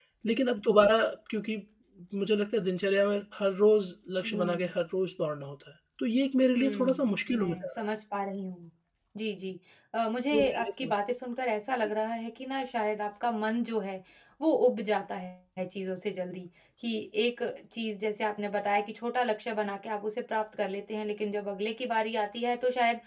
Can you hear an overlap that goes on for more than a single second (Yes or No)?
Yes